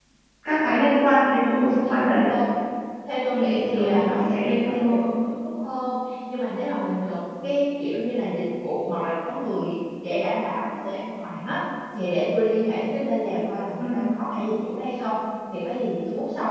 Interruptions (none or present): present